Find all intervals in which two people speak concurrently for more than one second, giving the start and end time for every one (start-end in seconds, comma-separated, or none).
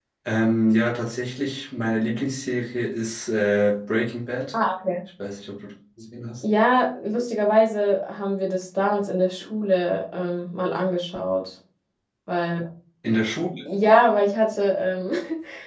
none